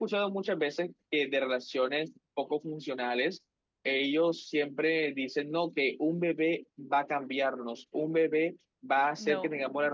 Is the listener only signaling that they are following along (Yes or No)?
Yes